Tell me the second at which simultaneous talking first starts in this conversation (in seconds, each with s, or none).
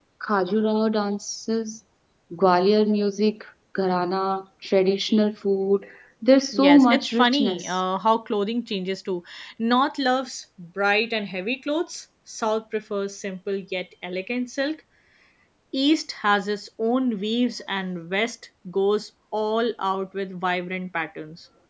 6.5 s